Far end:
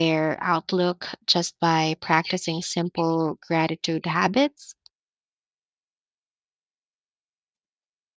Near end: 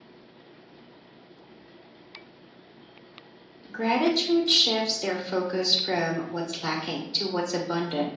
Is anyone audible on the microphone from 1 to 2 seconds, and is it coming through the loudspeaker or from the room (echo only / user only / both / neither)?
neither